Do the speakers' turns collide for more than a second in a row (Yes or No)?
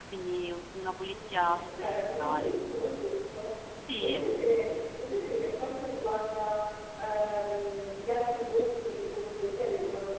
Yes